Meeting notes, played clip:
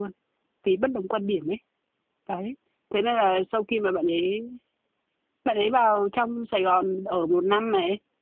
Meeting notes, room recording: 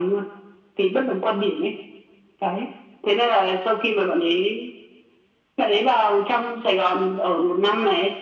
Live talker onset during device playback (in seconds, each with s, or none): none